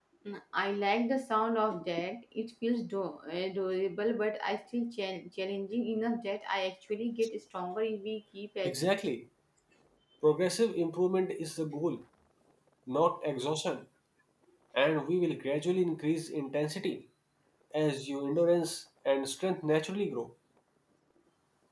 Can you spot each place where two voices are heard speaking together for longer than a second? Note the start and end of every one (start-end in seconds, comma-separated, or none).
none